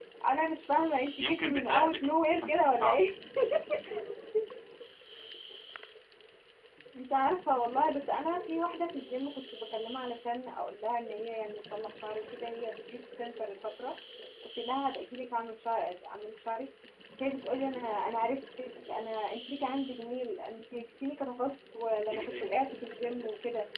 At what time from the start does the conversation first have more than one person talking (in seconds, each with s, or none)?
1.2 s